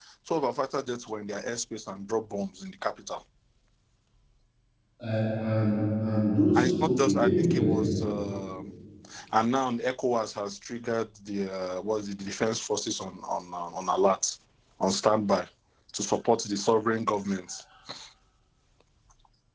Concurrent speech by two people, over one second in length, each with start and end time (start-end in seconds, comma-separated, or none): 6.5-7.8